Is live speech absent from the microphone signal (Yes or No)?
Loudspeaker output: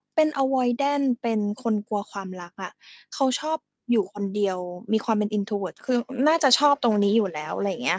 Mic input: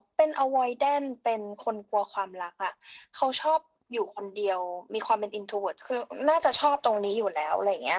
Yes